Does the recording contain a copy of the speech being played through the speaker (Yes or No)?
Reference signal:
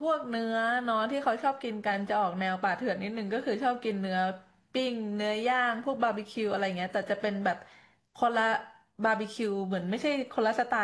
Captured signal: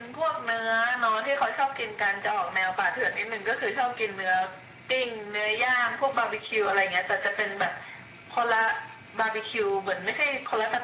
Yes